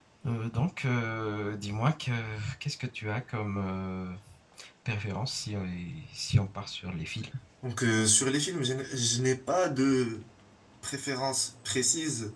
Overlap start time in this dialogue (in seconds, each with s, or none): none